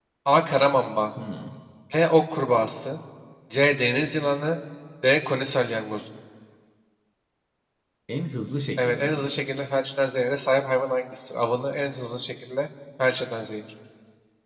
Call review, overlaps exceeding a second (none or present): none